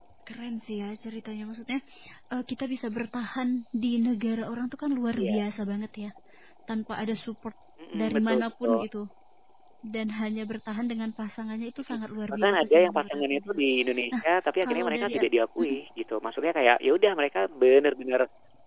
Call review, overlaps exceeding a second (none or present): present